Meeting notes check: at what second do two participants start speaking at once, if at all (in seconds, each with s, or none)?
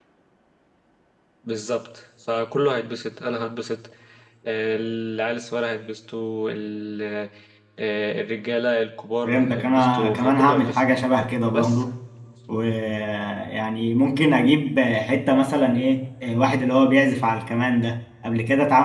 9.2 s